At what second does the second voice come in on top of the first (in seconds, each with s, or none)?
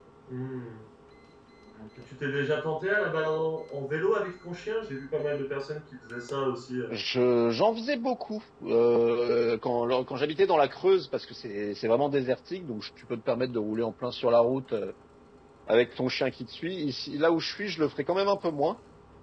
none